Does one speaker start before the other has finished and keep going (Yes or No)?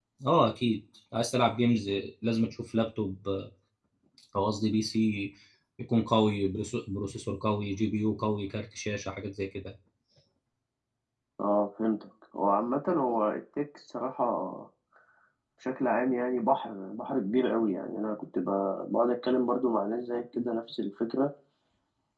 No